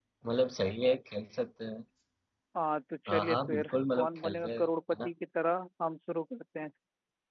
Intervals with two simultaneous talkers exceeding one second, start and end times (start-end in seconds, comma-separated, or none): 3.1-4.5